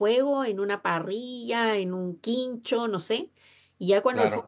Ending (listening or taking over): listening